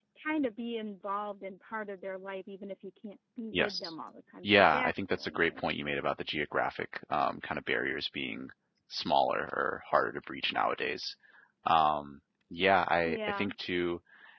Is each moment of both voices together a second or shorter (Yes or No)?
No